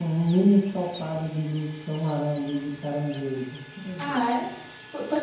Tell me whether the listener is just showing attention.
No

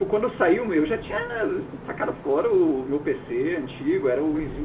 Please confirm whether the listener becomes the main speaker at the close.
No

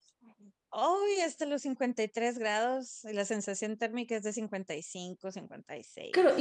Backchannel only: No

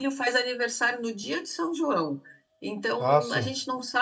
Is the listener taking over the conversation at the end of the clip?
No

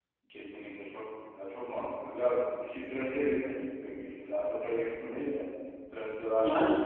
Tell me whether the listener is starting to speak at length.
Yes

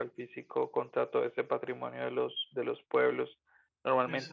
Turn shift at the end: No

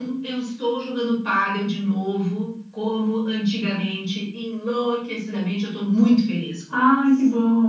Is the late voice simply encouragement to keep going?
No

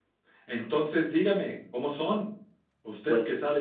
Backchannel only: Yes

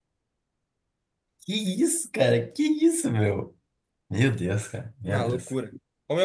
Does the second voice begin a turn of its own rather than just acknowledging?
Yes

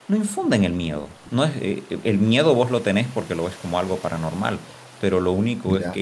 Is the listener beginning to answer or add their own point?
No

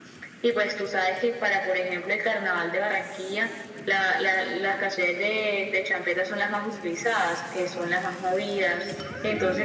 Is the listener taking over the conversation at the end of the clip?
No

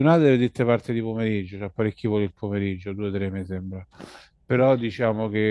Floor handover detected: No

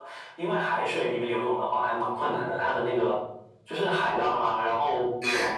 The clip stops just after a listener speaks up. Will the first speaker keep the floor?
Yes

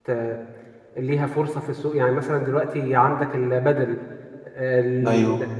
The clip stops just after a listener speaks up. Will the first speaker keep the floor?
Yes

